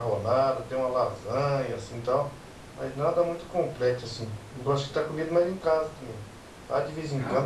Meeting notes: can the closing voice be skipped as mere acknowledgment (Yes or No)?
Yes